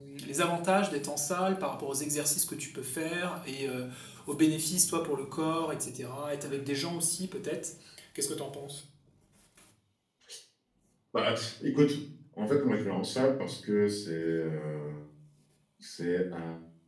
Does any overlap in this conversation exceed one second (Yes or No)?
No